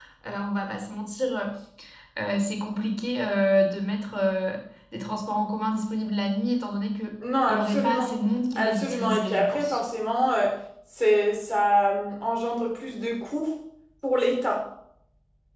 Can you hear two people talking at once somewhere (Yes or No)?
Yes